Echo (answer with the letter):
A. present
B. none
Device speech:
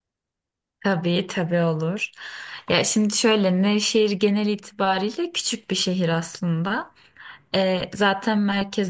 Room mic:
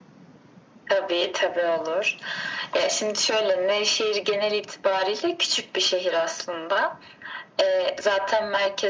A